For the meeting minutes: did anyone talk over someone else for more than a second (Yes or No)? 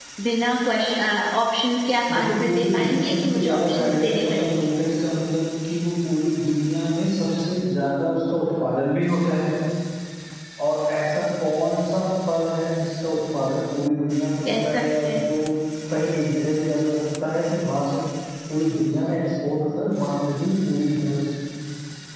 Yes